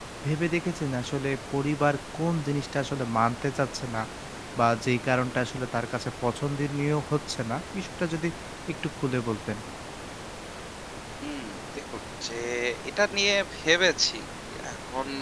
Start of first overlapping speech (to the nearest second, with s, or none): none